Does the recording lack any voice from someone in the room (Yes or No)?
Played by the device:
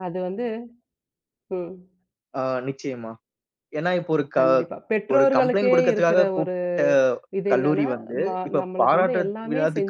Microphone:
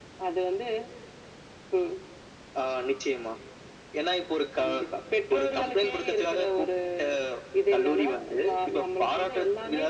Yes